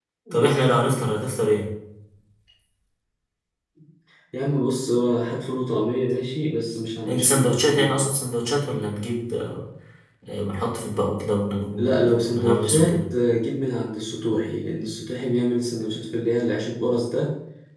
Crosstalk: present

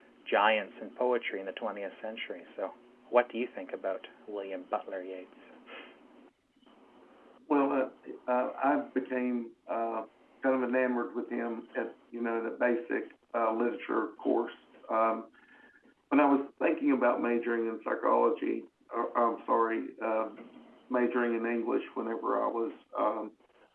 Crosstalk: none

